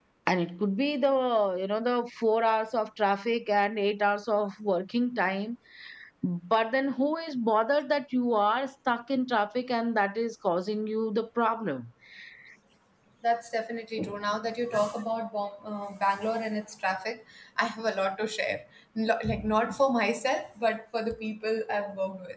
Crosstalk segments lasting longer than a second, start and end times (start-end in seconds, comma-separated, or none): none